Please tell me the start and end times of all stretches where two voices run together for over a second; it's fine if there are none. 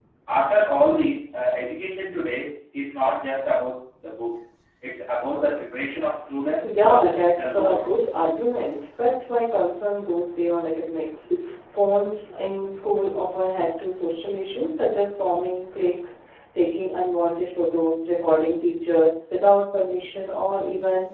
6.6-7.9

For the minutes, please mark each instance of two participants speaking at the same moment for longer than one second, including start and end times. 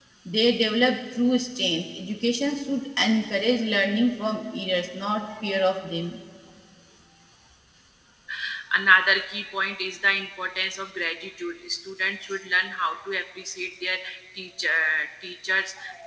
none

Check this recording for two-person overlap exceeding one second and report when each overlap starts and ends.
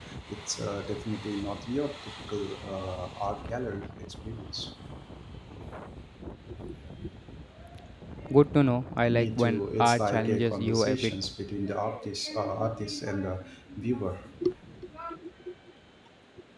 9.1-11.1

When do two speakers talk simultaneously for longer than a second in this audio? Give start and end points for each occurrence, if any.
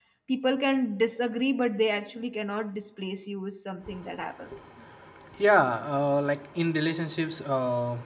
none

